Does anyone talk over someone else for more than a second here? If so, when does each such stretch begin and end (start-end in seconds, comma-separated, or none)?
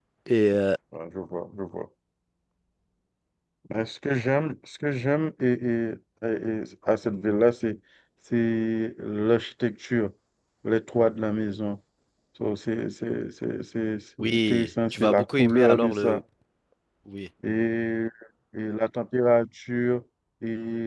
14.2-16.2